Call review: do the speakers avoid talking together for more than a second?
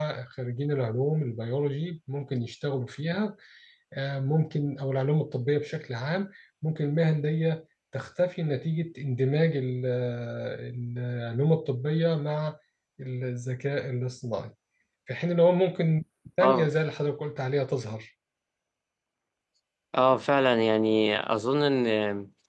Yes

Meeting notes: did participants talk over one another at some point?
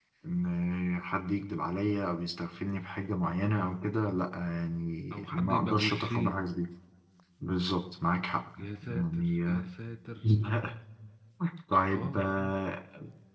Yes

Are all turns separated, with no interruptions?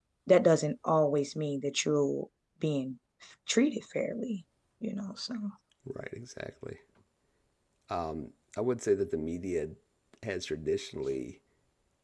Yes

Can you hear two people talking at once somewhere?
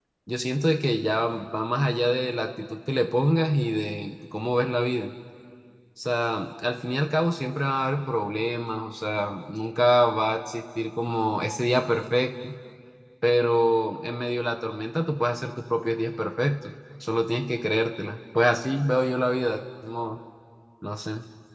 No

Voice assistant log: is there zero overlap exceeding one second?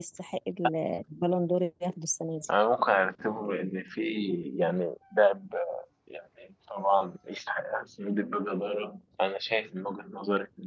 Yes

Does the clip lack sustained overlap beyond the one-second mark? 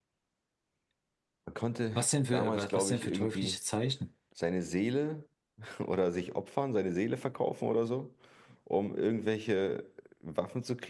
No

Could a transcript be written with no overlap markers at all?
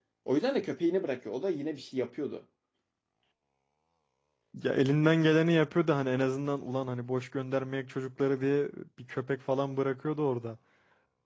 Yes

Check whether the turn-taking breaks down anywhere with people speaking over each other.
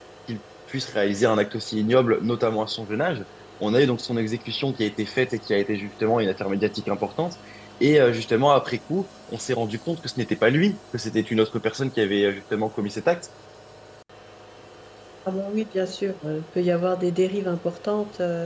No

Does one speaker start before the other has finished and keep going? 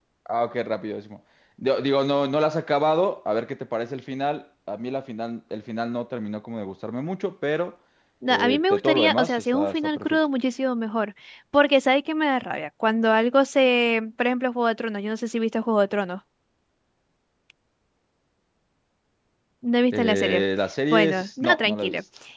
Yes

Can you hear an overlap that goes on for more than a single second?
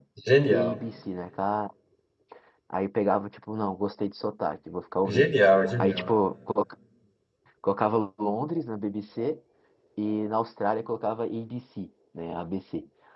No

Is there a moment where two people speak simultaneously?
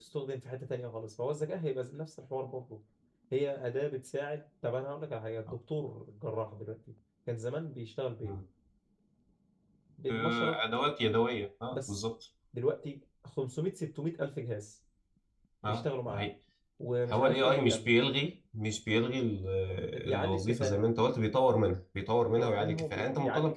Yes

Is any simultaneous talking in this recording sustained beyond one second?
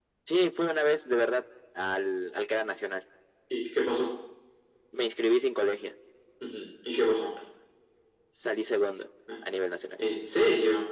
No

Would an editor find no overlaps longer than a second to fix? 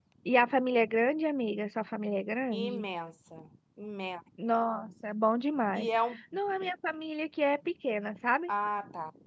Yes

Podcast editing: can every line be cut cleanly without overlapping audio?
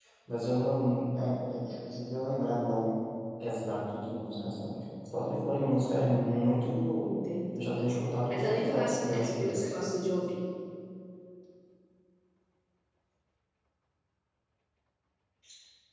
No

